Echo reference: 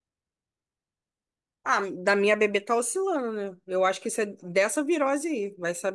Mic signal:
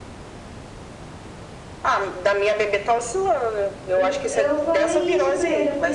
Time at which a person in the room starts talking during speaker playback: 3.9 s

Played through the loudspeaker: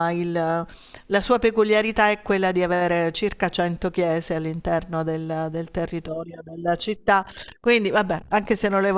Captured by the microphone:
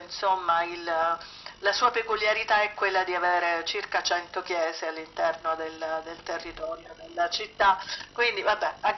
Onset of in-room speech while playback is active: none

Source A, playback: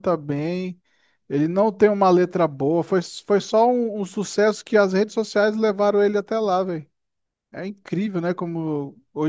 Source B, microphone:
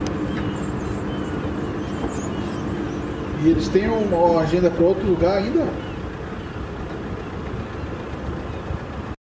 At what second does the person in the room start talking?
3.3 s

